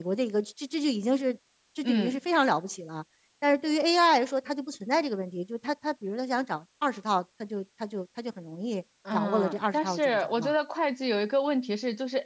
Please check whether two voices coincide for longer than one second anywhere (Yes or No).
Yes